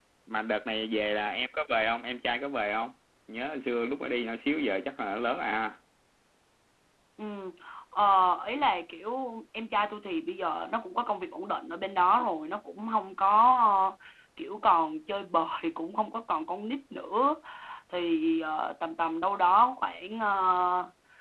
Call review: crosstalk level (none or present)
none